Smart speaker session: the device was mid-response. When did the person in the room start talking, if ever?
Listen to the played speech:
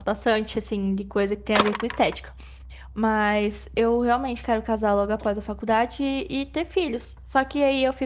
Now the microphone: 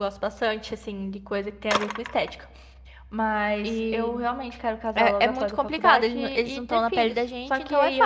4 s

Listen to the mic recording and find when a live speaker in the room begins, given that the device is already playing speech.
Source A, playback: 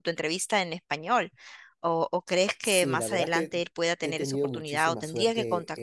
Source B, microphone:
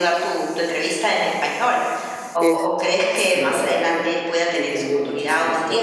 2 s

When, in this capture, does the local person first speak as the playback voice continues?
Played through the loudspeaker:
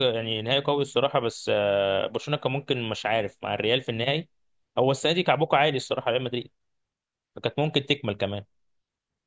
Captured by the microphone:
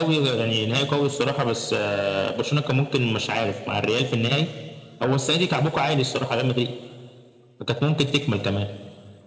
none

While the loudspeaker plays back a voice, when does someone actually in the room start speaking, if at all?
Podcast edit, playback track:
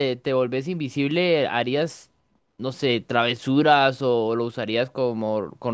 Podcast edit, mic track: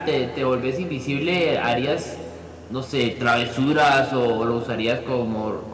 none

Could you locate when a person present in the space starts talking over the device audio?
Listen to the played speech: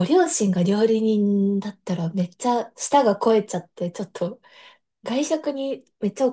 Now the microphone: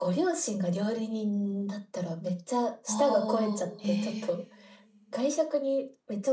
3 s

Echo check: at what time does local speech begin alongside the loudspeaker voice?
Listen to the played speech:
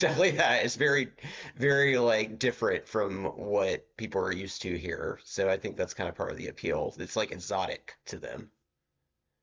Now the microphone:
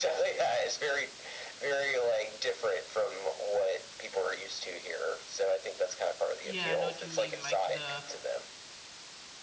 6 s

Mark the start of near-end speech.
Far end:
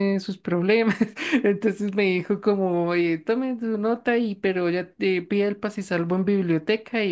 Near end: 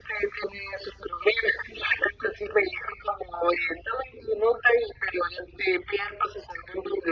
none

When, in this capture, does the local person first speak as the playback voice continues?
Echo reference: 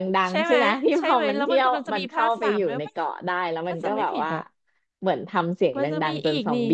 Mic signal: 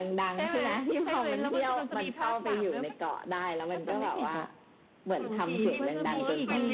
5 s

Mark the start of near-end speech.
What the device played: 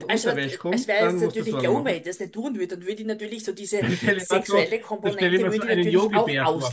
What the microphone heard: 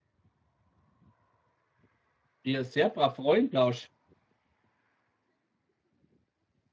2 s

